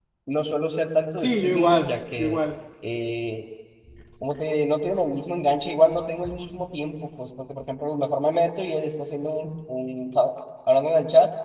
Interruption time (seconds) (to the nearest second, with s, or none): 1 s